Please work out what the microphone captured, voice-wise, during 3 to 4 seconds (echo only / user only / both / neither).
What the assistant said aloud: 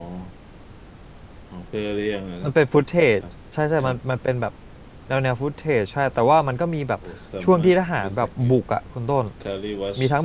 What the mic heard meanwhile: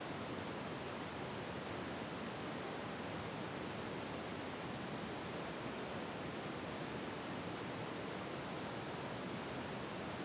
neither